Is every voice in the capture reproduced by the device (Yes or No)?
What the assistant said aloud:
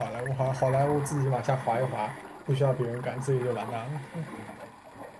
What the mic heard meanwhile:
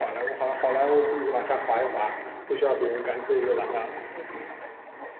Yes